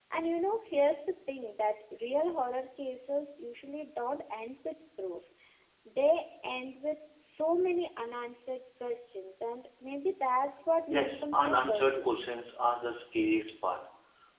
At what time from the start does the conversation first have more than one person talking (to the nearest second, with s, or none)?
11 s